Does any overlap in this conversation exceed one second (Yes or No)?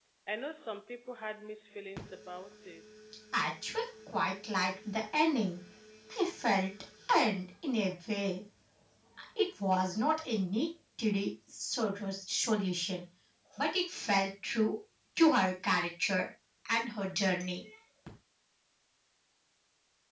No